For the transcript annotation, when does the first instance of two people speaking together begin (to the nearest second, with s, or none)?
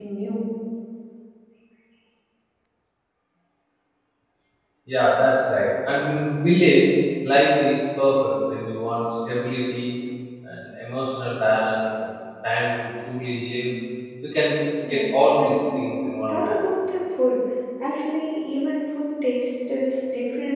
15 s